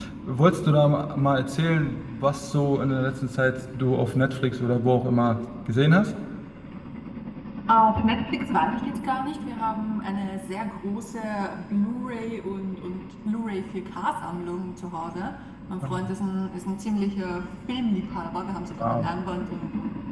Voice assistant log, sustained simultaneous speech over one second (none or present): none